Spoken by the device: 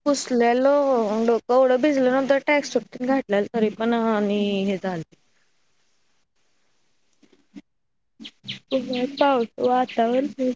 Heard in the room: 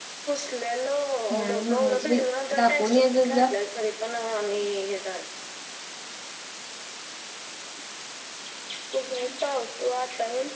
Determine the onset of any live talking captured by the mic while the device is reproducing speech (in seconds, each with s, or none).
1.3 s